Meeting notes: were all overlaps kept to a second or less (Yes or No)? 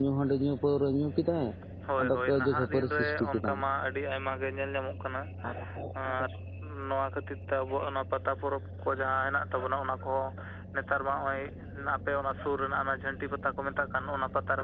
No